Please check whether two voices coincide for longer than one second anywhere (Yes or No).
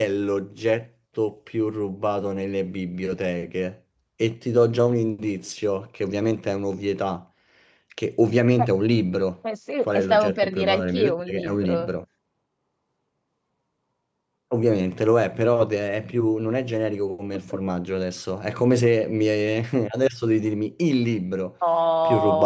Yes